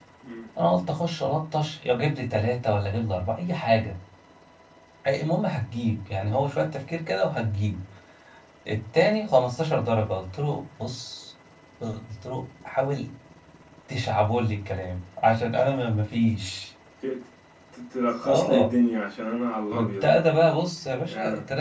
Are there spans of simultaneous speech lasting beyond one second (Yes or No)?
No